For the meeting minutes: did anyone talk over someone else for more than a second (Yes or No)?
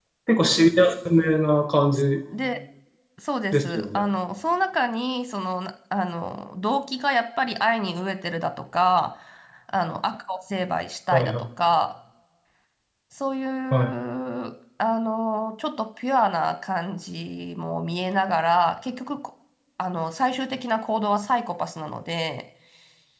No